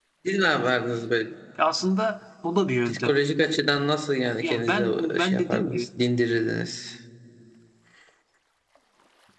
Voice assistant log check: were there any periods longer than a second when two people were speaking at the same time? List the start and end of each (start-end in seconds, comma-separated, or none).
4.4-5.9